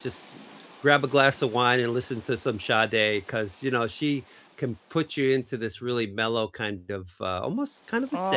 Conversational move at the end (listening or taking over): taking over